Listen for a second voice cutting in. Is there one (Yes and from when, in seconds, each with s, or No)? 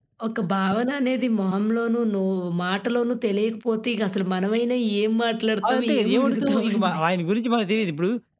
Yes, from 5.6 s